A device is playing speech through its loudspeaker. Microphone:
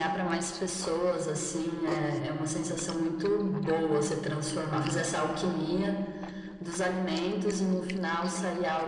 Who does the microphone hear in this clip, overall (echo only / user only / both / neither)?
echo only